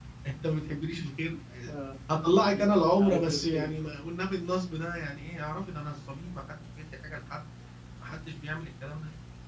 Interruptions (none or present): present